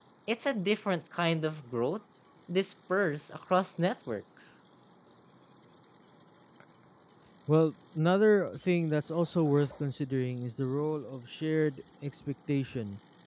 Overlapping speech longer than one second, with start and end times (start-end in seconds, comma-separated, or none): none